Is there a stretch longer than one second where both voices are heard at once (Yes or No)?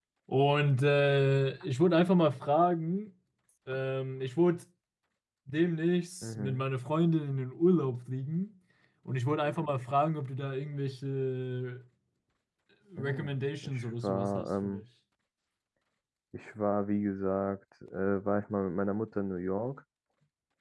Yes